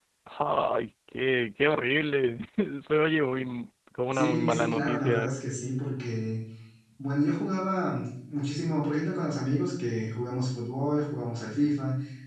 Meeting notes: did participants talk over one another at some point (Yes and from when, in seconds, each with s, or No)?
Yes, from 4.1 s